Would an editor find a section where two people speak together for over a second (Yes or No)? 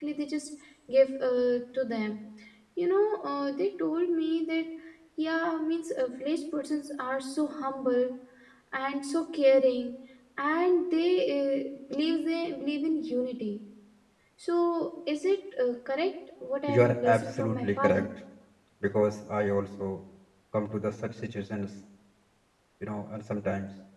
Yes